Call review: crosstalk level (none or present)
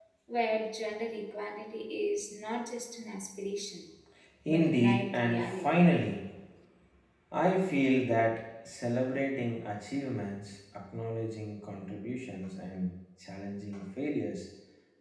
present